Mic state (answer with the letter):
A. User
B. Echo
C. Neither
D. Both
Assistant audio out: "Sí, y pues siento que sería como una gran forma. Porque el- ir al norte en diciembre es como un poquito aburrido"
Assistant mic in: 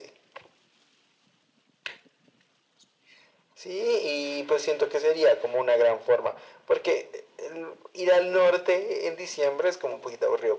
B